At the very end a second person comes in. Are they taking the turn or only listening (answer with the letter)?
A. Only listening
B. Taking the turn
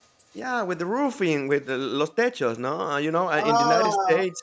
A